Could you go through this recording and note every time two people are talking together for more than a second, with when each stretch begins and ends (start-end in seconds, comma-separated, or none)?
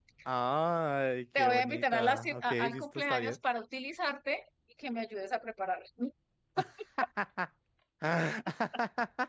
1.4-3.4